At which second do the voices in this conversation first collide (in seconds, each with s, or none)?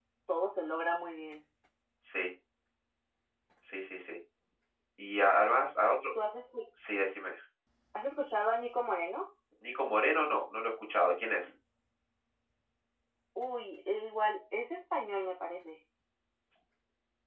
none